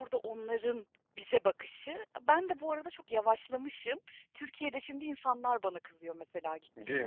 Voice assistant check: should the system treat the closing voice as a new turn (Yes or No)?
Yes